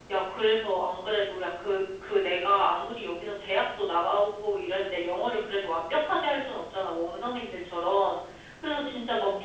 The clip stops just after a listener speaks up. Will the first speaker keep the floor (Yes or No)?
Yes